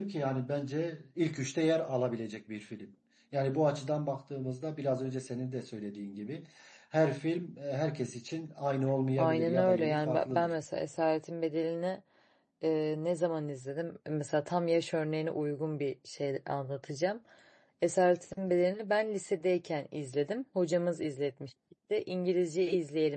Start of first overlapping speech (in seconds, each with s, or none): 9.2 s